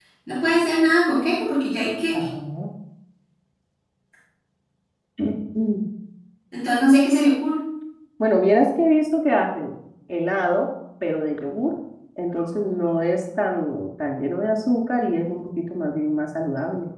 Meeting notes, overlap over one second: none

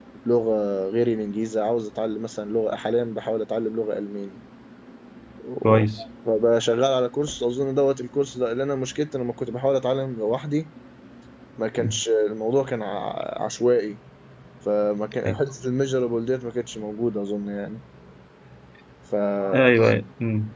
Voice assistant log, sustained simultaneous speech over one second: none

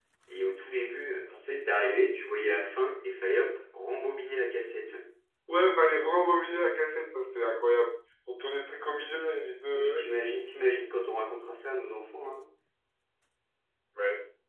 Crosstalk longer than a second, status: none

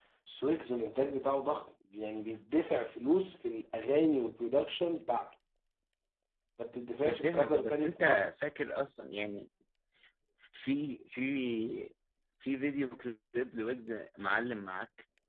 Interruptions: present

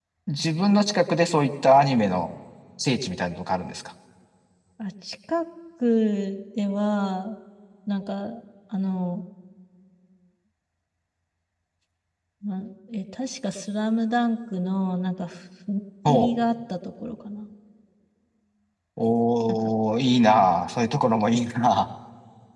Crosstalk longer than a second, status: none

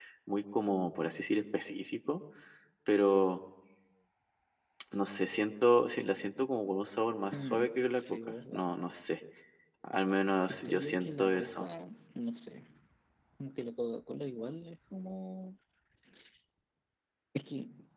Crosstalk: present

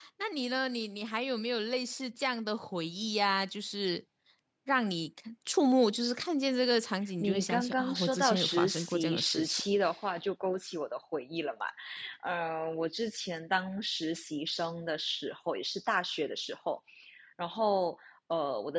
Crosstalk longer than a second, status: present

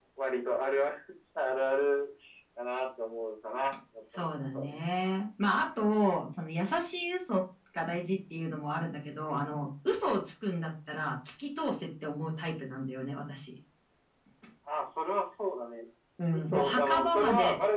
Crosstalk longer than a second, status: present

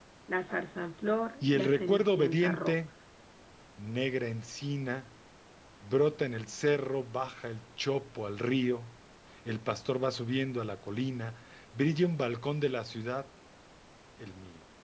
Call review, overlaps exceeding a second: present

